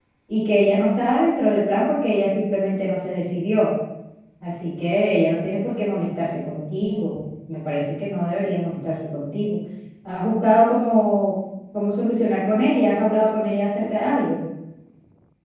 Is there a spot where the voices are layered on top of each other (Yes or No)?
No